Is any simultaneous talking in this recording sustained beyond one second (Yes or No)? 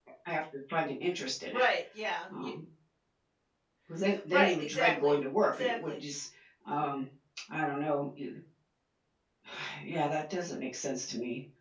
Yes